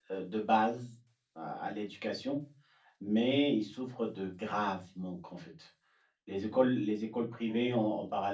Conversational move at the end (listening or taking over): listening